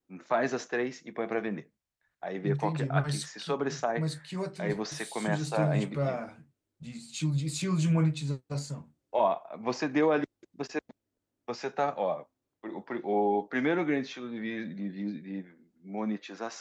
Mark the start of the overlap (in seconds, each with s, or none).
2.4 s